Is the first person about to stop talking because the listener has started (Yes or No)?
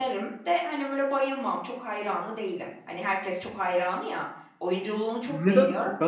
Yes